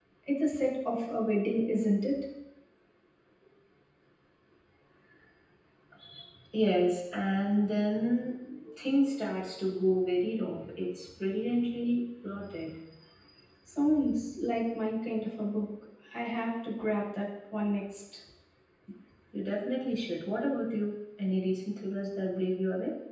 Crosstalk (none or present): none